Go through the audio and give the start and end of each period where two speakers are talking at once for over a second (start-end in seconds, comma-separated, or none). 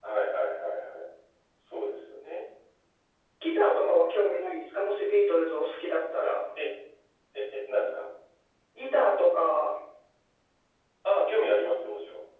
none